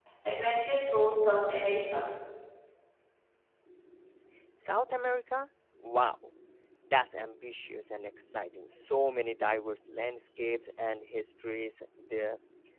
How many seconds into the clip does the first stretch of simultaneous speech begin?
none

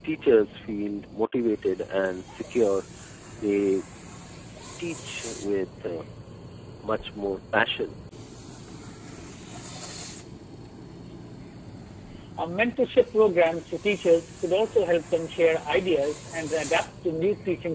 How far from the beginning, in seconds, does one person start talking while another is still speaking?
none

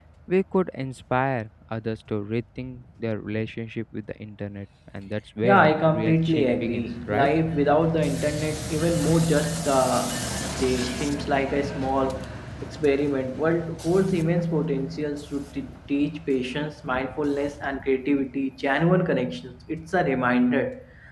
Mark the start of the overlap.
5.4 s

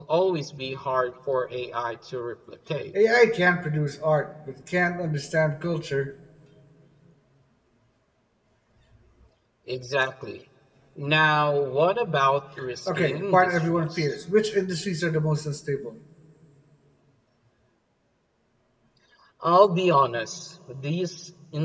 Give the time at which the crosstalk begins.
12.9 s

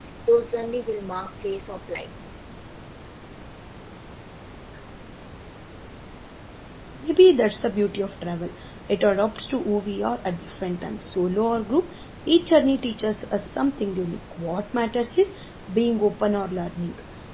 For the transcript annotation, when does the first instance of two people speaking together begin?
none

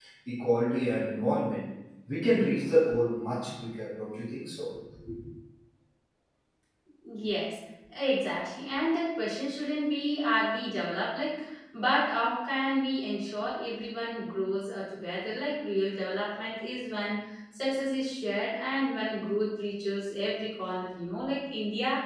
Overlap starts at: none

